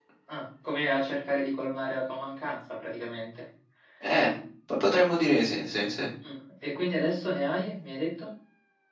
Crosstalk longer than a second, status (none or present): none